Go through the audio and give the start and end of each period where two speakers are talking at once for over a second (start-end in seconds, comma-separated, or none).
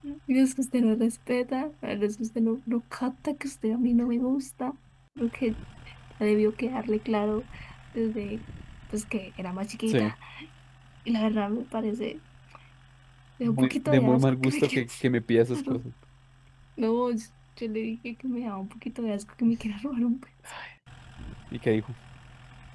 13.4-14.8